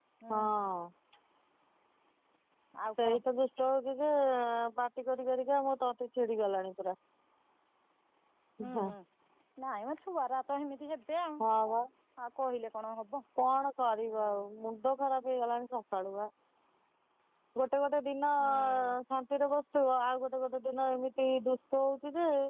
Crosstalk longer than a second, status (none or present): none